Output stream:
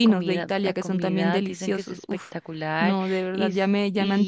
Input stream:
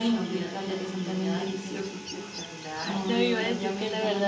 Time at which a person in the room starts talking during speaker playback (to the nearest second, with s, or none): 3 s